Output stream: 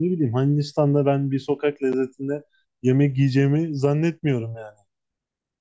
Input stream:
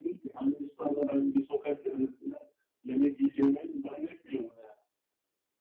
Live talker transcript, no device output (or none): none